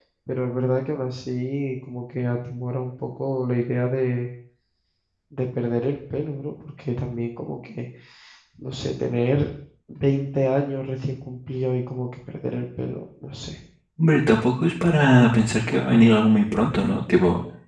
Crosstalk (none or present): none